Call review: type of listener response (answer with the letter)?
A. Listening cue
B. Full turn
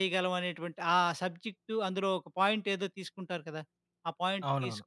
A